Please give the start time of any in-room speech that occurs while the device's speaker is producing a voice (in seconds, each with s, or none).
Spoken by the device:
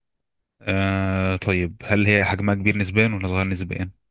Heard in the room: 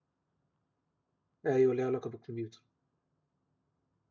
1.4 s